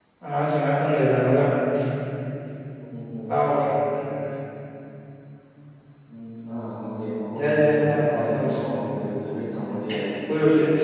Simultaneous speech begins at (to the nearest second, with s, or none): 7 s